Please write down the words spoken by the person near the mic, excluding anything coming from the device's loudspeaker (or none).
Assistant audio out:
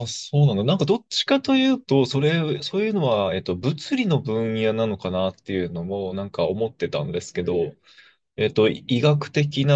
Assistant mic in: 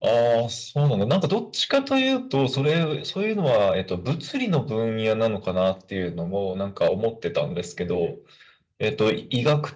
none